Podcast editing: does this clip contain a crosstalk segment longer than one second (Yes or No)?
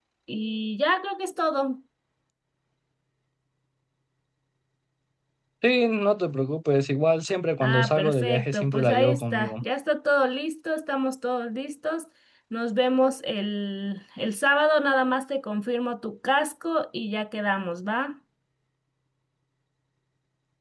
Yes